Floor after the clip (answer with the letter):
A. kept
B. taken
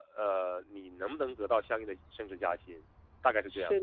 B